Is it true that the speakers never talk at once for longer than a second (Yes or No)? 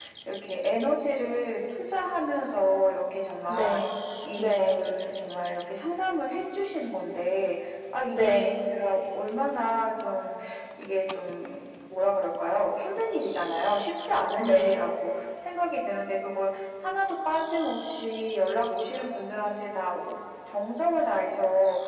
Yes